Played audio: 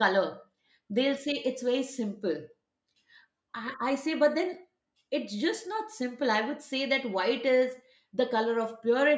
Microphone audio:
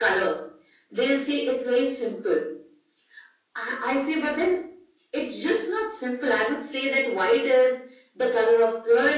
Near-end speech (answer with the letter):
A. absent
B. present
A